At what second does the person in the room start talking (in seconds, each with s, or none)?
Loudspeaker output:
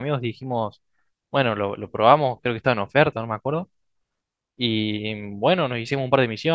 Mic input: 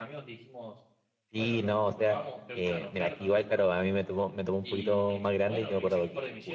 1.3 s